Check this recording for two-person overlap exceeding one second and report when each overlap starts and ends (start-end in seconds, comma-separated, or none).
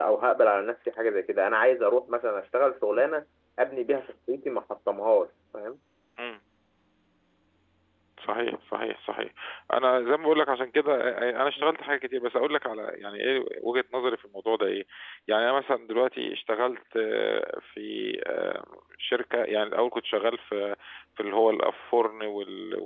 none